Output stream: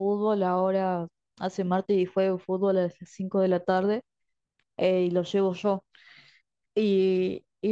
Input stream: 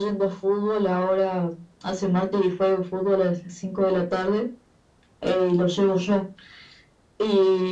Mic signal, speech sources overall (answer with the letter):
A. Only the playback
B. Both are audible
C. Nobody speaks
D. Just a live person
A